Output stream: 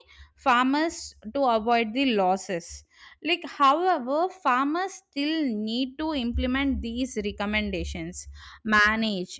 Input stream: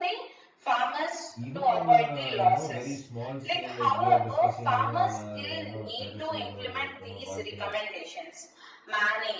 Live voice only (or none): even on a you know very small scale, like we are discussing, you know, on our you know terraces or you know balconies,